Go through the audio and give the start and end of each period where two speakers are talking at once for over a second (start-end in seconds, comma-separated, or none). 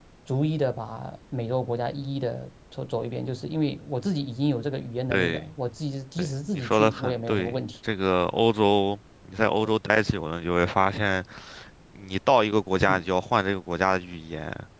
6.2-7.6